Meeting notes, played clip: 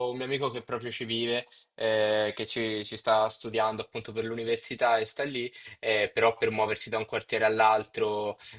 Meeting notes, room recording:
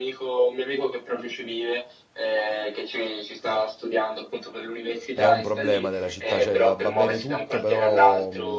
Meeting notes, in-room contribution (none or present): present